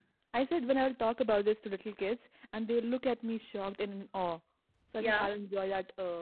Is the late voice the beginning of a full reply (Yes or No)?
No